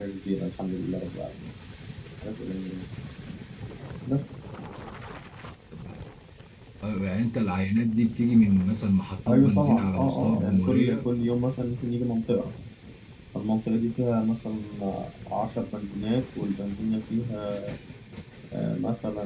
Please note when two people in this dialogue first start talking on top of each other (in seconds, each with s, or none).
9.3 s